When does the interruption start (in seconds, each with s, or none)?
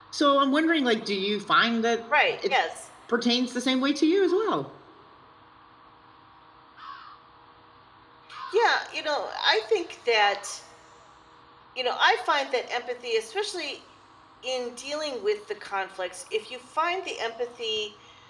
none